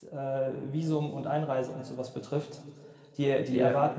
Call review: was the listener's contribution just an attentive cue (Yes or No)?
Yes